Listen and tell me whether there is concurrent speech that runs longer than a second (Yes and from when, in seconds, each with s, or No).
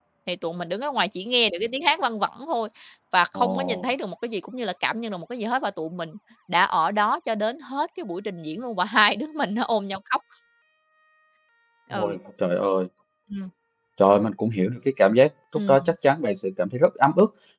No